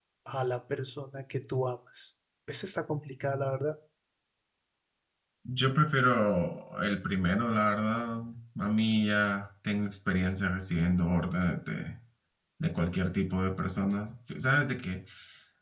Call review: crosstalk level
none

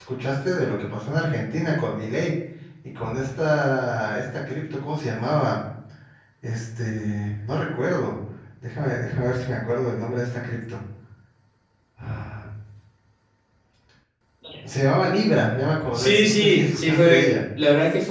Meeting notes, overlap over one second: present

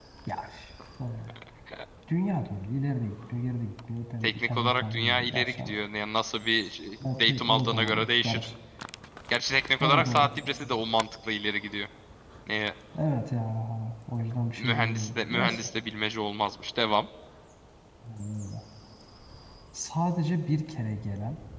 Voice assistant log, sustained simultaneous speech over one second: present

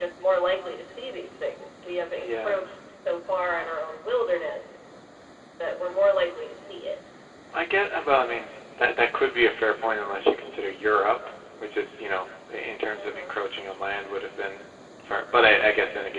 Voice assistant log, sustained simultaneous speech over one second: none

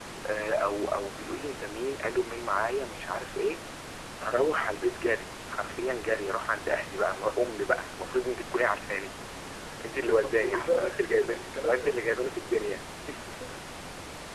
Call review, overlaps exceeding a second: present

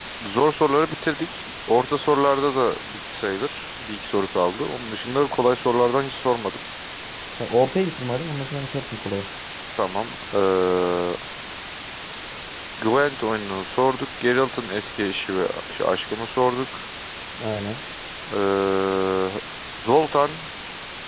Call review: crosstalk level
none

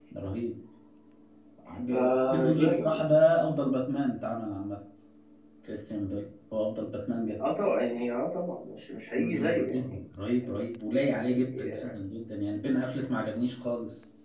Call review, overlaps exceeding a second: present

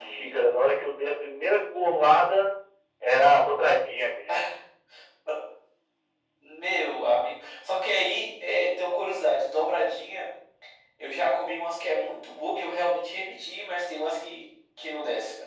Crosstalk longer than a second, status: none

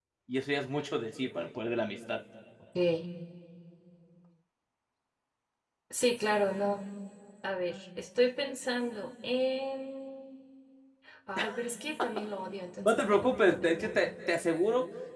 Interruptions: present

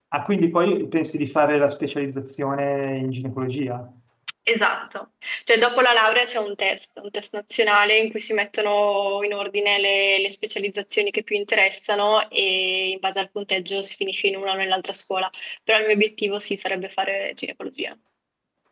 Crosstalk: none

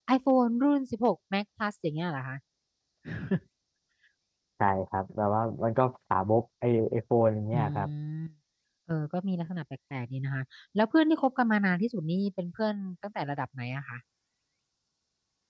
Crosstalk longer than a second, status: none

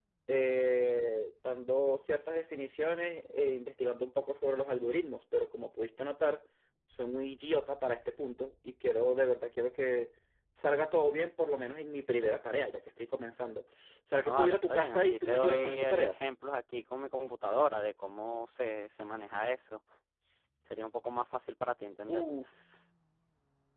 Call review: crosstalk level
present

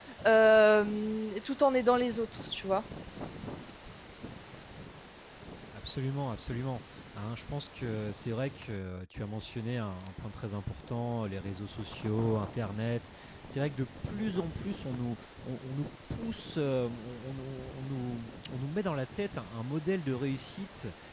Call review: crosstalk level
none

